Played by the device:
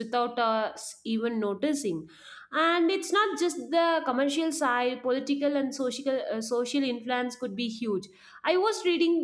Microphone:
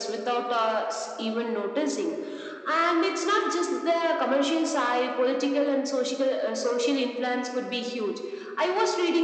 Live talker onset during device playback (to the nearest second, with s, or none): none